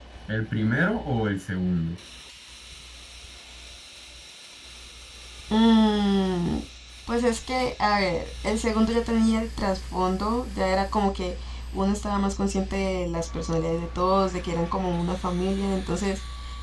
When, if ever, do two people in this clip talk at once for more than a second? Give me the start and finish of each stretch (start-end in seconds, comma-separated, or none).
none